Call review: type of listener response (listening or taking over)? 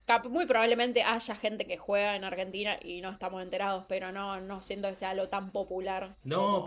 taking over